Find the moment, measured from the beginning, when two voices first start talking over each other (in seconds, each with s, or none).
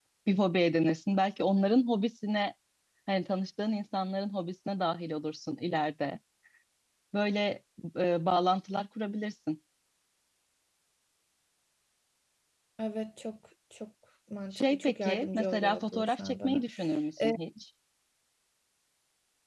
14.5 s